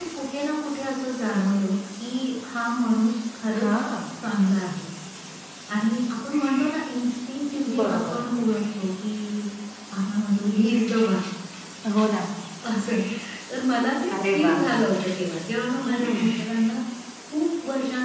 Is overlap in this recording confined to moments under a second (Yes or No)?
Yes